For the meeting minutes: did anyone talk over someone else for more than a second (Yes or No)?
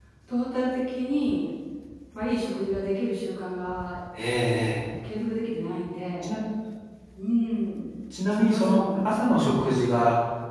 Yes